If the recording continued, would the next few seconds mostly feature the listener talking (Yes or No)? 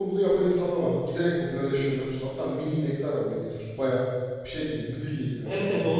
Yes